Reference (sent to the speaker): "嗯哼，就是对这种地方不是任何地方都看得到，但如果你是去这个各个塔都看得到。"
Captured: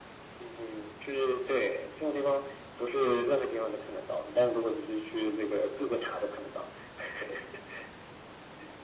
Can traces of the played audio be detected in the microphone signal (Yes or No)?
Yes